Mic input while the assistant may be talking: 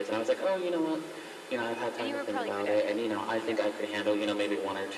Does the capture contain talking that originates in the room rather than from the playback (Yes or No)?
Yes